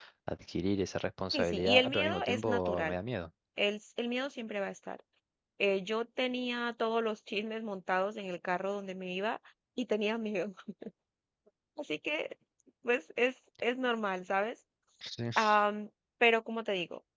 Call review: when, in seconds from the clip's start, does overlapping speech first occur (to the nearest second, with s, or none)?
1 s